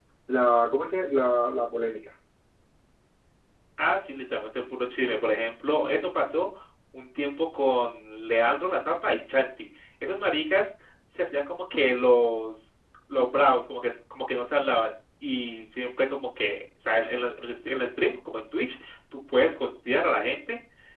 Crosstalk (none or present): none